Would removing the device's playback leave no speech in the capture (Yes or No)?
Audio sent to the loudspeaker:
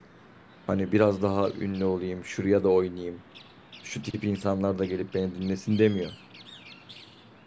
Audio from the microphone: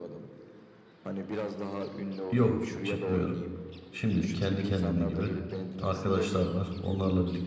No